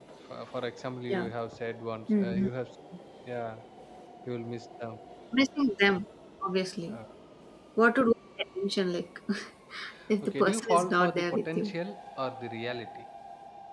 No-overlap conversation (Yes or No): No